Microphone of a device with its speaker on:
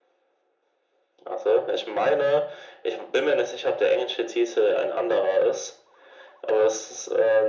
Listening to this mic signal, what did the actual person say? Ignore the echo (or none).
none